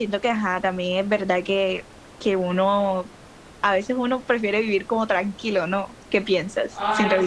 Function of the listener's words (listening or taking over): taking over